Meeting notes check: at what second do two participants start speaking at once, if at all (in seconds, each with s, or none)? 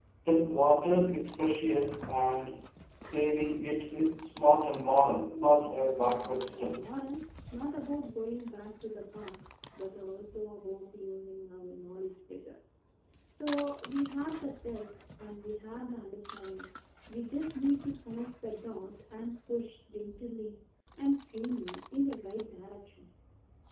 5.5 s